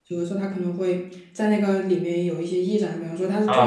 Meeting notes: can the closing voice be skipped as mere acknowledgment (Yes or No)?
No